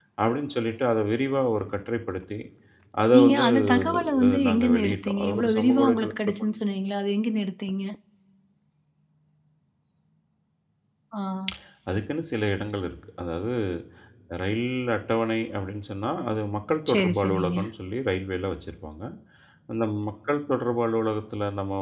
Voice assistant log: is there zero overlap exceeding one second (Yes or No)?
No